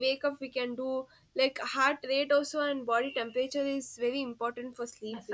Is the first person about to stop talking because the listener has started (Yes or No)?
Yes